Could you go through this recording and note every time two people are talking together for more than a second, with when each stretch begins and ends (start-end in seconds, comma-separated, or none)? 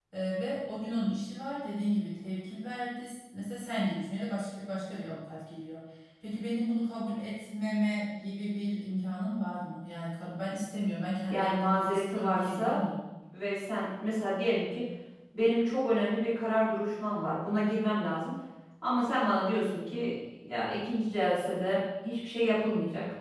11.3-12.8